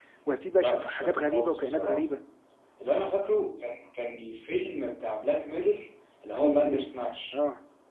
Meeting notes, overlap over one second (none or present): present